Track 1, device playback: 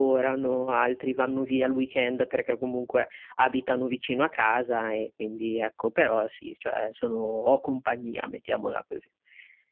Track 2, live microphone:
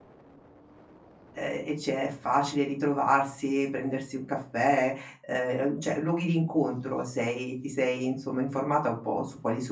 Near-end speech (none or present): present